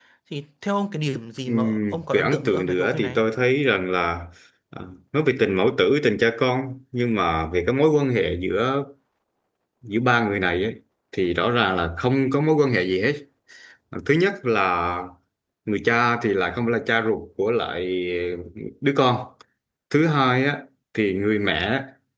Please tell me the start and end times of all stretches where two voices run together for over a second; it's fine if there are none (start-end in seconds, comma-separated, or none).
1.5-3.2